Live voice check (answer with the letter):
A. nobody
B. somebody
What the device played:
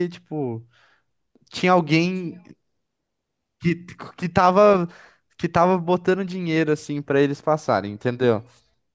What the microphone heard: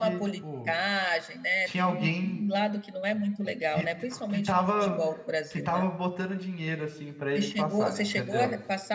B